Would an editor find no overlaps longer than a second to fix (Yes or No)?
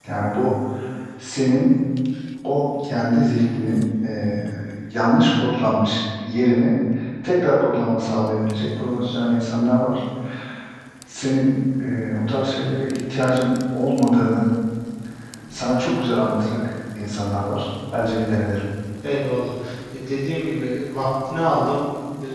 Yes